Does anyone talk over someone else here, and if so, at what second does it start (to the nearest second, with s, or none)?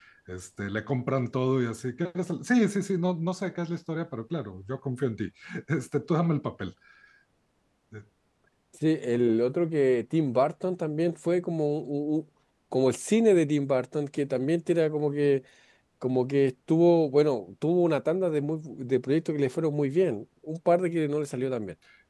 none